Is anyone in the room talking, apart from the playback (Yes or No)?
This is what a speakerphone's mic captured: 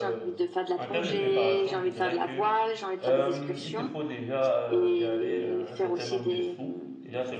Yes